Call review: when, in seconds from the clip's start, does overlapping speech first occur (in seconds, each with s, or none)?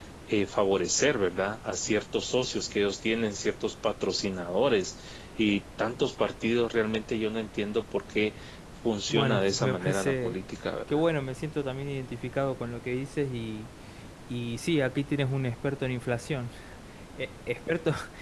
9.1 s